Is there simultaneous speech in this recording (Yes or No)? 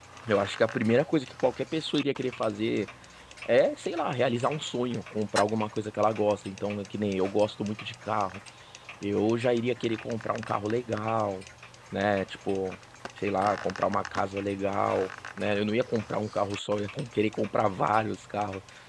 No